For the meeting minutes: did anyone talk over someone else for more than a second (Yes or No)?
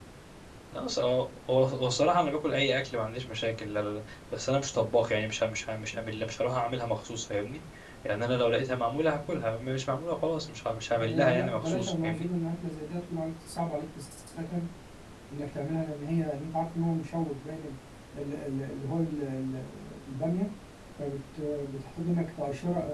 Yes